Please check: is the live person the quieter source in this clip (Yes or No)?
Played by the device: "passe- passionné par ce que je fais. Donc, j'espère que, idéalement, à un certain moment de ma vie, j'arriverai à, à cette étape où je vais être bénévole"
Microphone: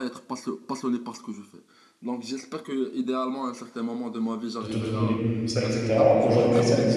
No